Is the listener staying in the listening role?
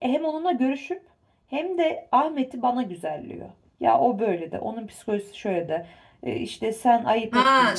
No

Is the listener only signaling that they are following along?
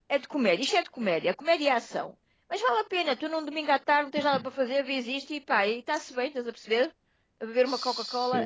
No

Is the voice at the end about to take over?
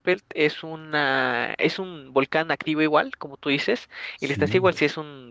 No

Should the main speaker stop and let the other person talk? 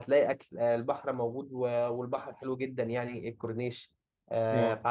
No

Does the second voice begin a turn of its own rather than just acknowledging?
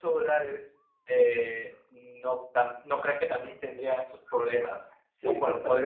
Yes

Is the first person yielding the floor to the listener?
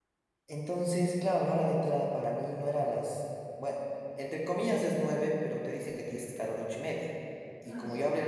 No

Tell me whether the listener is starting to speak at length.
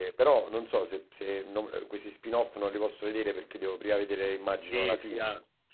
Yes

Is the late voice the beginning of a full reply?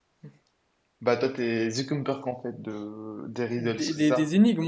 Yes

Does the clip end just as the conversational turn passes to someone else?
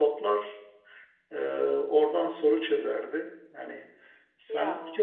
No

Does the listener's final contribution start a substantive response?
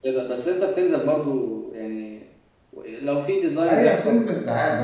Yes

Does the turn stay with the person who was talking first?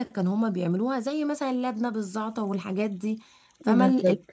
Yes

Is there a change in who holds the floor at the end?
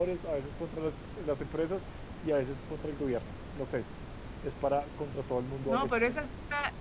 Yes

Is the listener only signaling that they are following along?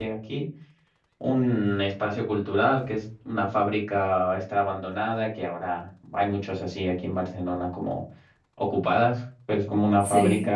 Yes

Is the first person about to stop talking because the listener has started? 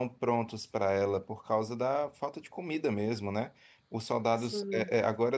No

